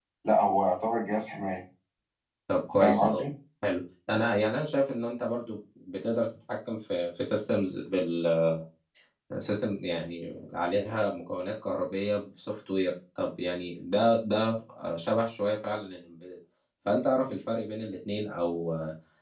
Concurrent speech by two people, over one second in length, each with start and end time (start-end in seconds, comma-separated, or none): none